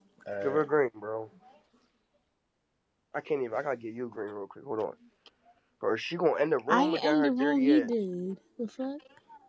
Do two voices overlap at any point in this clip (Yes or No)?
Yes